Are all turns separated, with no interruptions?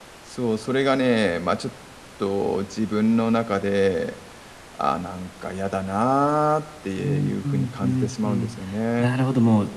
No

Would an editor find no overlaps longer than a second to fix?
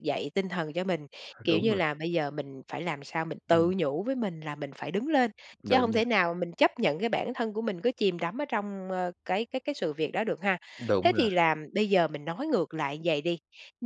Yes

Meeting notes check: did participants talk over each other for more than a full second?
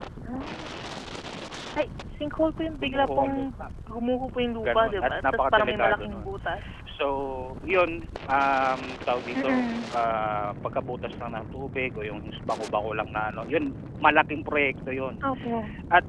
Yes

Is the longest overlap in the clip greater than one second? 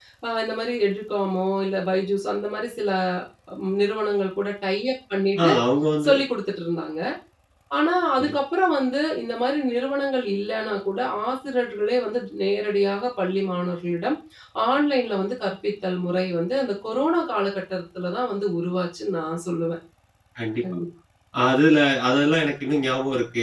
No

